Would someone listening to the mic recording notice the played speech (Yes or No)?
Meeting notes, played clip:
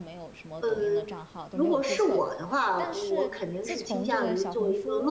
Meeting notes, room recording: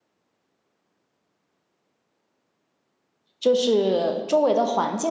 No